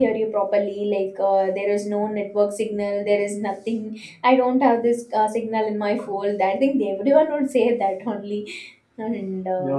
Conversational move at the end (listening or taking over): taking over